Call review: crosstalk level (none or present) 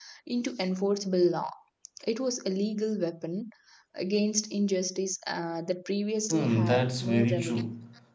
present